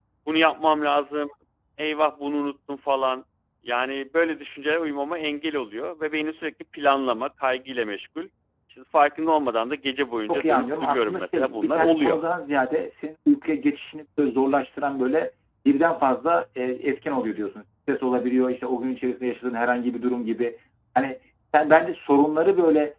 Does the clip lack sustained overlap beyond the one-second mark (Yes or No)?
No